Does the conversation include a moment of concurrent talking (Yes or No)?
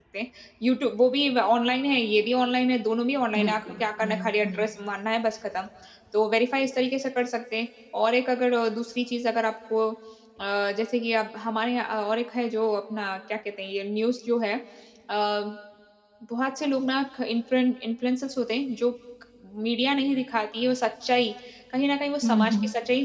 Yes